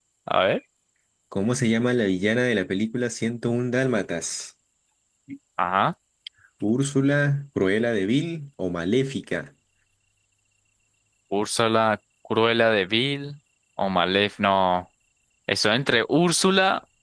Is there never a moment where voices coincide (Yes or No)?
Yes